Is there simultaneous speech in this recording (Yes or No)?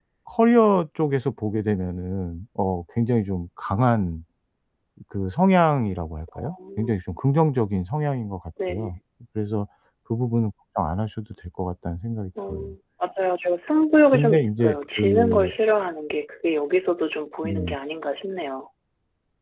Yes